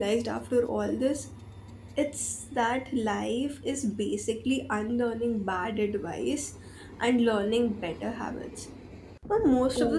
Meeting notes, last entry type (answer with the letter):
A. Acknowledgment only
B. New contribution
A